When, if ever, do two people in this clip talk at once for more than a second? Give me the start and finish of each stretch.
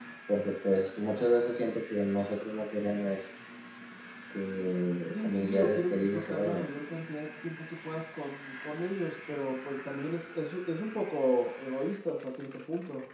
5.1-6.6

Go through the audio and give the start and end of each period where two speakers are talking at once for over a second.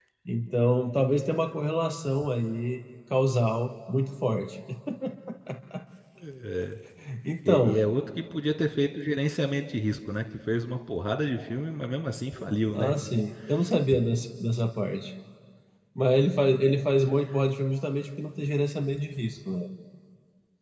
none

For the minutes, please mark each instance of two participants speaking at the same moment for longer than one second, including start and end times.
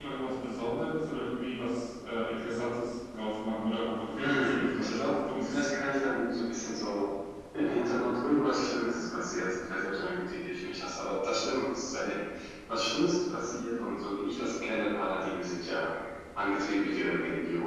4.2-5.6

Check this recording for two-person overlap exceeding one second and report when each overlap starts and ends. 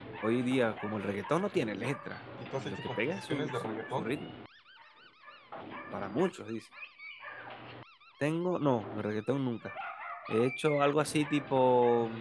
2.6-4.0

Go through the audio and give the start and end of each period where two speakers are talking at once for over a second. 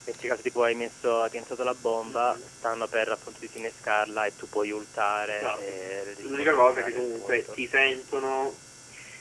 6.2-7.6

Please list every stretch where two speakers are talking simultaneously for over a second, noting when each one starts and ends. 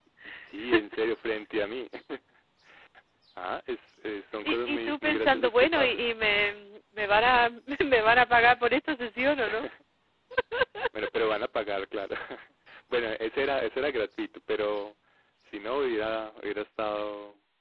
4.5-6.1

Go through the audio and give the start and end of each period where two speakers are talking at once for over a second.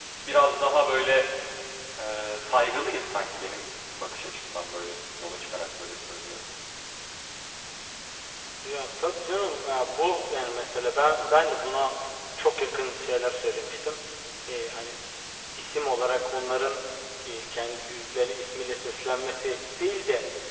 none

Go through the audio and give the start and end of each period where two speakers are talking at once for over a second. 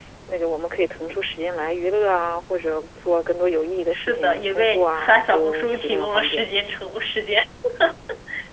3.9-6.4

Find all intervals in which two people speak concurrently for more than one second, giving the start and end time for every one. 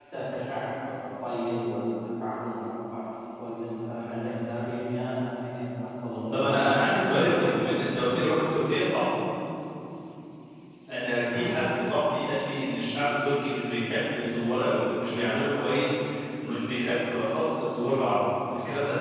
6.3-7.7

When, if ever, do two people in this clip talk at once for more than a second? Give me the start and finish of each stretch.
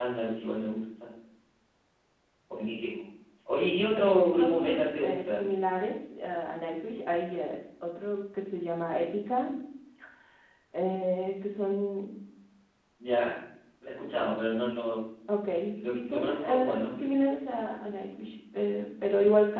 4.0-5.5, 15.8-17.1

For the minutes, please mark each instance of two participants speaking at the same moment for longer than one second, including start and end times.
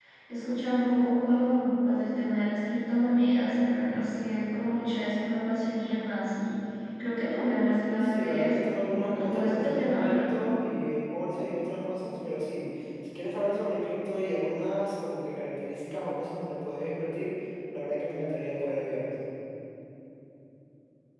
8.0-10.2

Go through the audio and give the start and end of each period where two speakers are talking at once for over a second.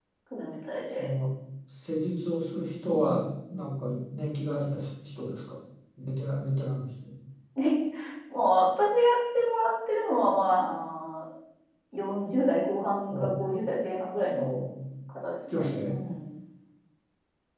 none

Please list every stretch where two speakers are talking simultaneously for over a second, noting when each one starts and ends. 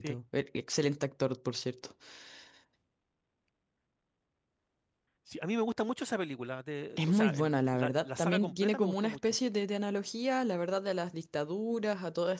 7.0-9.4

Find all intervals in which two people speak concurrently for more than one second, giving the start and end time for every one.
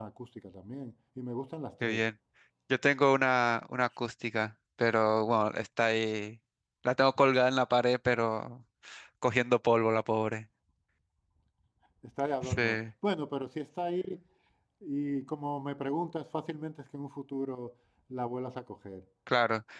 none

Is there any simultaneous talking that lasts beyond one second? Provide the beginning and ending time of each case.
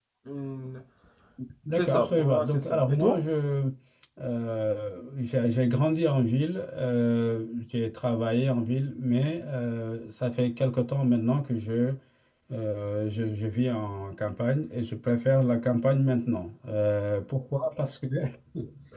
1.7-3.2

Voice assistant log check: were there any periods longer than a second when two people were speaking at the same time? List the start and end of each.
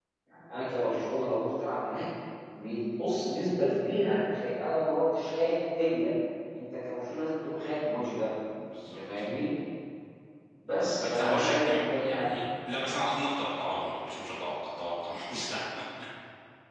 11.0-12.3

